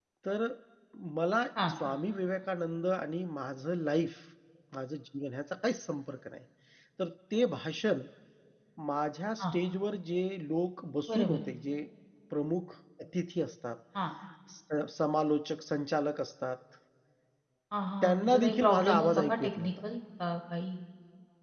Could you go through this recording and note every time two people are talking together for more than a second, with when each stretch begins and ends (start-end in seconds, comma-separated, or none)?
18.0-19.7